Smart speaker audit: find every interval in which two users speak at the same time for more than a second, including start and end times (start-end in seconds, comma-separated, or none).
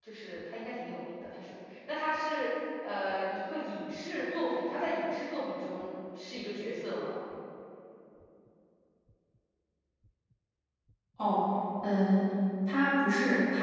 none